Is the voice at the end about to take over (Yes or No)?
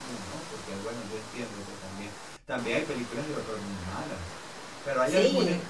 No